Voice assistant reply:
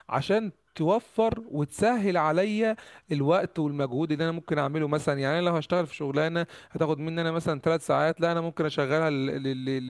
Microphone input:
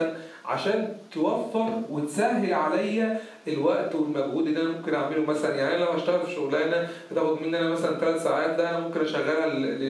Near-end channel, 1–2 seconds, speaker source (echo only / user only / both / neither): echo only